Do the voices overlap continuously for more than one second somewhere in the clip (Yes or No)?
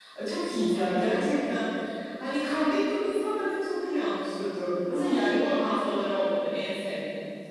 No